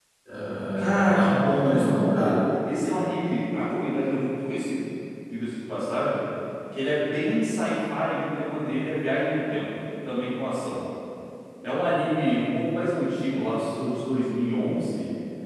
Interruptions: present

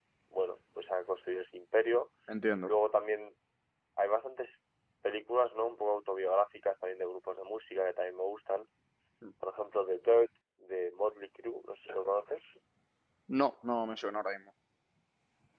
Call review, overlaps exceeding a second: none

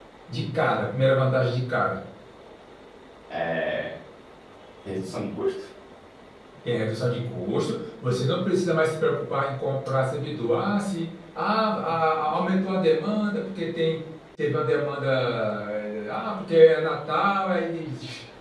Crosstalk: none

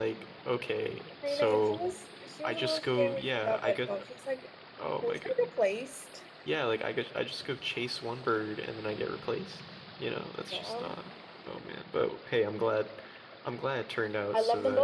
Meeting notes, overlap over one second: present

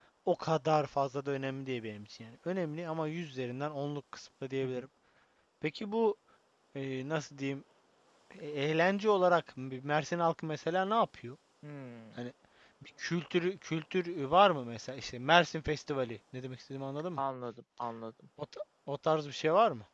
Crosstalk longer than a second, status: none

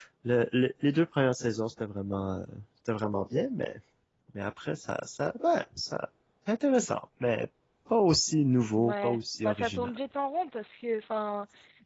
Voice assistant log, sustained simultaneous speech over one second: present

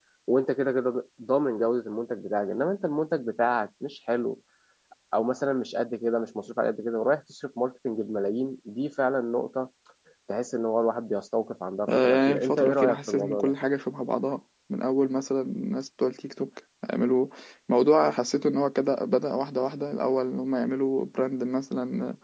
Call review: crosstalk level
present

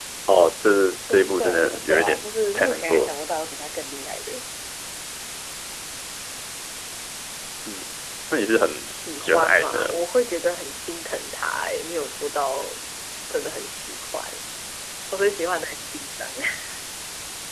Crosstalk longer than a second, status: present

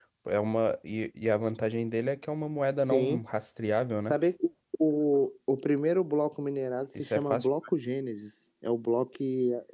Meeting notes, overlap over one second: none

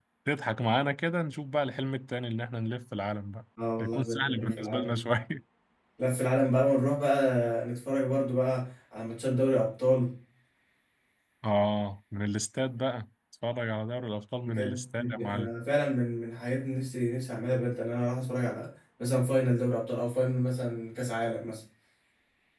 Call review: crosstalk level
present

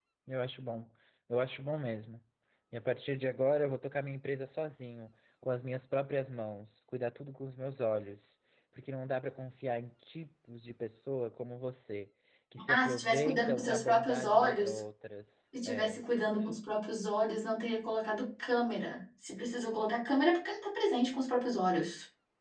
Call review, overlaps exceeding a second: present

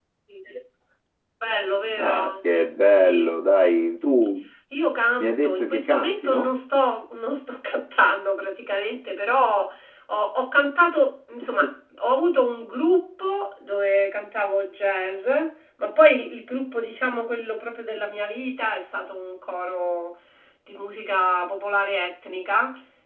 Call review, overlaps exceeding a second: present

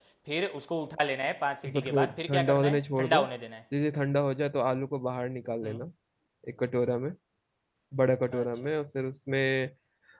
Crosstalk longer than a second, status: present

